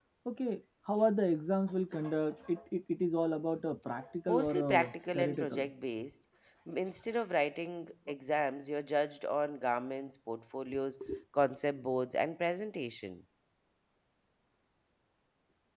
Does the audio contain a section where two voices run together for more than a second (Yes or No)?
Yes